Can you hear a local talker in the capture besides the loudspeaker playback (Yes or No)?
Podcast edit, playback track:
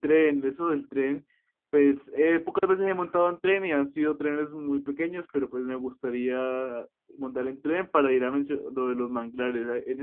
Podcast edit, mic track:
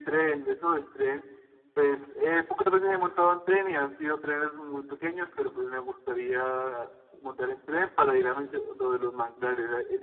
No